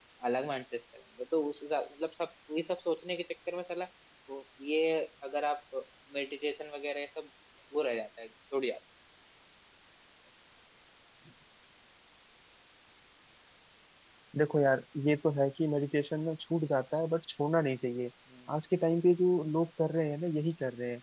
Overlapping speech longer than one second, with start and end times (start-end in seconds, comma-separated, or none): none